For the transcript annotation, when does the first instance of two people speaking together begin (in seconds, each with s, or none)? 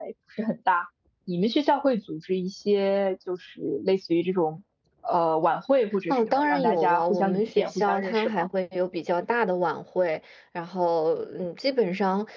6.1 s